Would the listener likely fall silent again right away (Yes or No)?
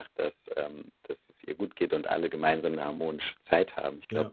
Yes